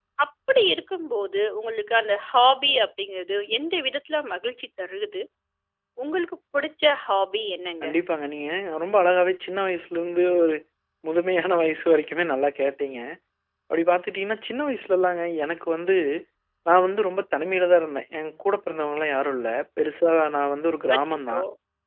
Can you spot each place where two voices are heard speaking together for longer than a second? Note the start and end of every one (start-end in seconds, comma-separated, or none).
none